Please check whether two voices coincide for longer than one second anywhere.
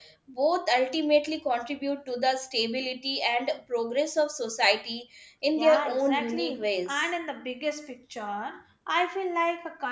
Yes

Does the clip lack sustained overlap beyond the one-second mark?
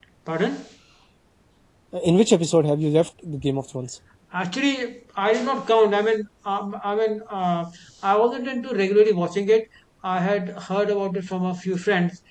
Yes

